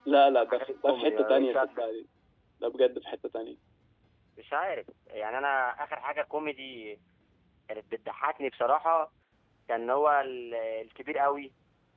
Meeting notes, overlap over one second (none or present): present